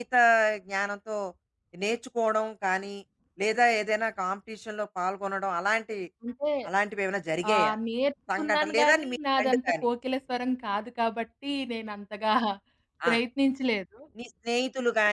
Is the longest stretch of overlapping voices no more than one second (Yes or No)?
No